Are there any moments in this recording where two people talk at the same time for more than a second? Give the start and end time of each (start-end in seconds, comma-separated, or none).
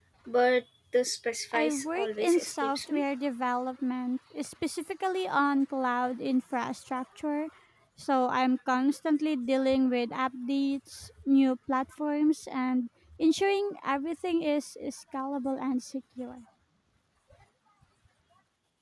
1.5-3.0